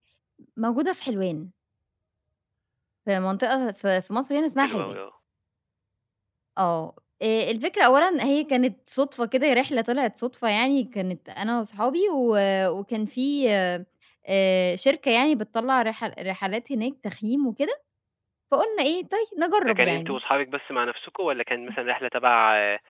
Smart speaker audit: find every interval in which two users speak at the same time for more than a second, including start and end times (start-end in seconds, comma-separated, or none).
none